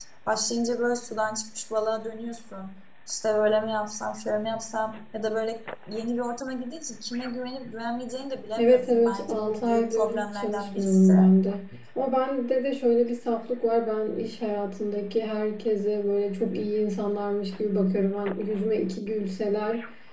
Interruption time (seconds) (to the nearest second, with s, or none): 9 s